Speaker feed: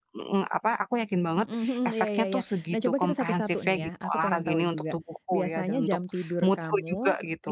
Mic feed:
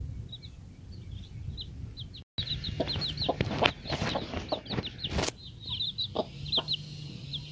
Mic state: neither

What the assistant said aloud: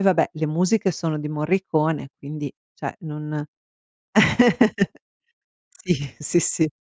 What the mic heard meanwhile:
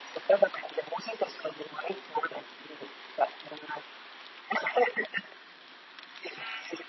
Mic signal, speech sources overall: echo only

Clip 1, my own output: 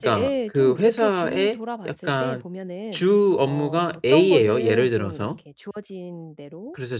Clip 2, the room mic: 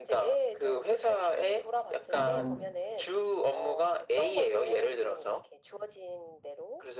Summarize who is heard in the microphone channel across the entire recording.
both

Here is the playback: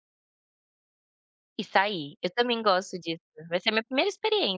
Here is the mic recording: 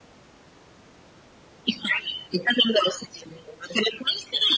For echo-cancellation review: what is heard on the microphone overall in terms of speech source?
echo only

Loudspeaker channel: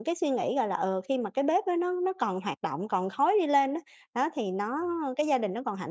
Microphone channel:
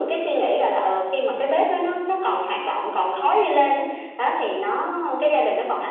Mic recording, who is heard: echo only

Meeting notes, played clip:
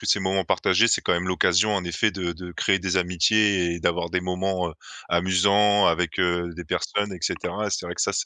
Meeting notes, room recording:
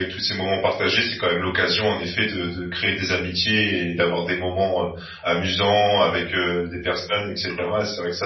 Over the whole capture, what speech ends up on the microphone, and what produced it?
echo only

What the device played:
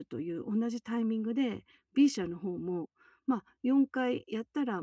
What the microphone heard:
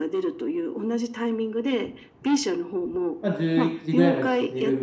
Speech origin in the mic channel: both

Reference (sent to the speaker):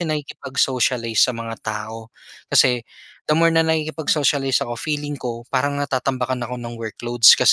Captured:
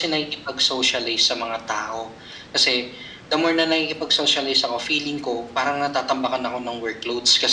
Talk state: echo only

